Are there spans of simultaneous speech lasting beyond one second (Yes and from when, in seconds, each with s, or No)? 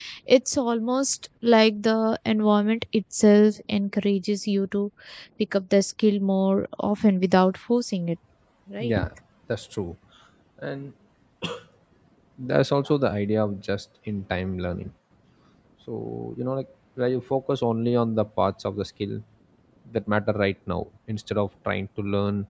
No